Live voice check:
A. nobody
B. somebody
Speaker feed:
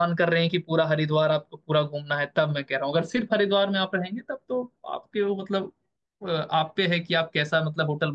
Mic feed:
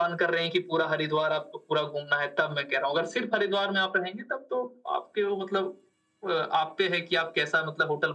A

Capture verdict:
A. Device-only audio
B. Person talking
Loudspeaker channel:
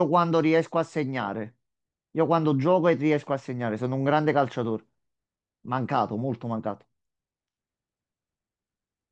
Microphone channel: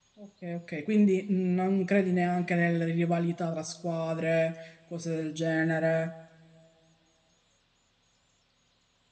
B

